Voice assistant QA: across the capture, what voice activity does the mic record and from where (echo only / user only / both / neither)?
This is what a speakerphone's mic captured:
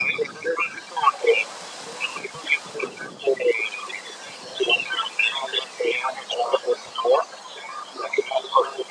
echo only